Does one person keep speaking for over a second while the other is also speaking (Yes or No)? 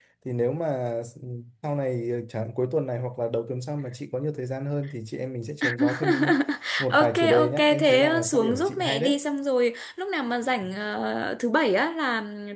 Yes